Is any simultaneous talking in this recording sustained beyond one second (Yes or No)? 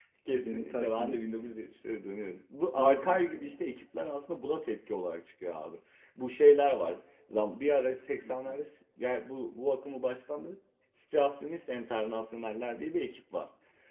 Yes